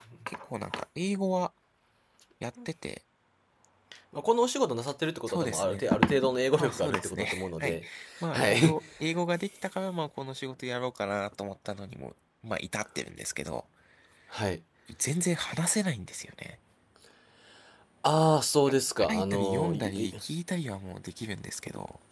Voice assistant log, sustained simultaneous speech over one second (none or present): present